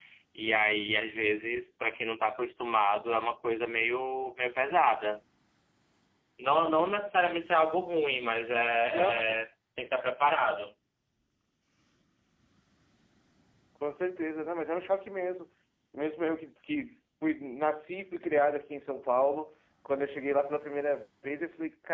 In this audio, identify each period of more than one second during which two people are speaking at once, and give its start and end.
none

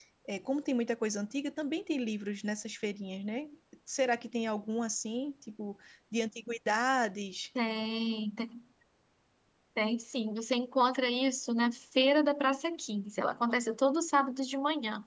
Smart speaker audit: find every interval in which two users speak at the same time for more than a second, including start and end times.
none

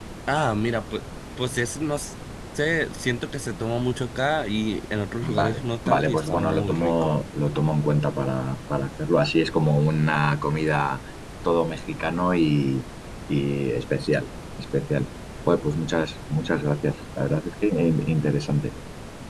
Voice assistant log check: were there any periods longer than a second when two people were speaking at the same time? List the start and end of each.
5.2-7.1

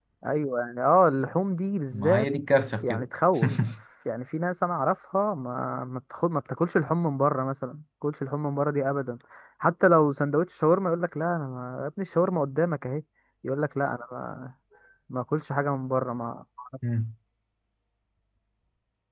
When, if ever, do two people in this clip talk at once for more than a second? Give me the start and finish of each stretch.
none

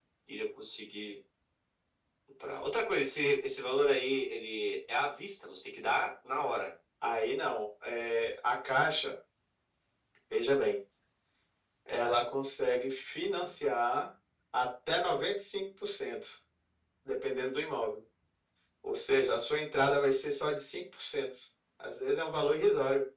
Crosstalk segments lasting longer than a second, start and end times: none

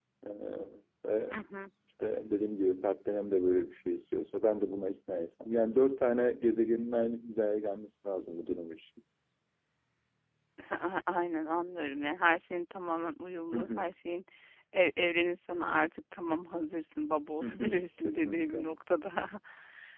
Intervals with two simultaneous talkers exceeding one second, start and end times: 17.4-18.6

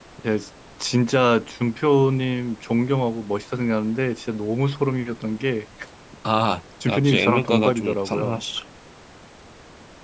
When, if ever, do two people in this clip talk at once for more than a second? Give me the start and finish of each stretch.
6.9-8.4

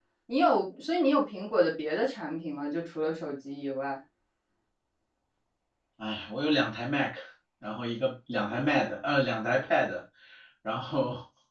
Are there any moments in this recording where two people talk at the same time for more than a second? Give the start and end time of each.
none

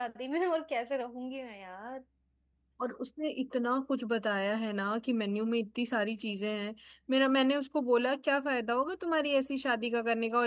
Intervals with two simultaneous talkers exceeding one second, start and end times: none

